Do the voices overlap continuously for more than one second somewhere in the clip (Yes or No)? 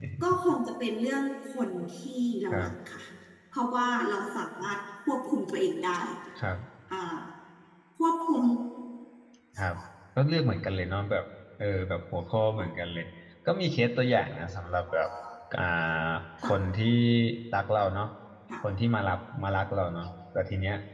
No